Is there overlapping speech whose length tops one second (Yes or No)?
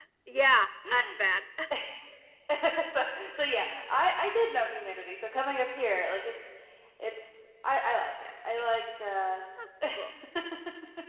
No